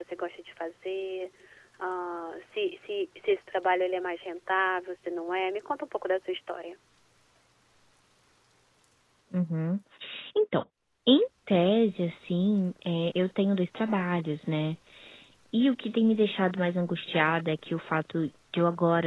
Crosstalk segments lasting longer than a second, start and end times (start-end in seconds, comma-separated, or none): none